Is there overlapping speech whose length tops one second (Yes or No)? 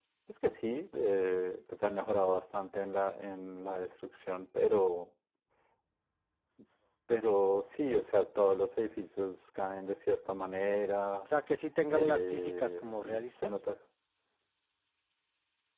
Yes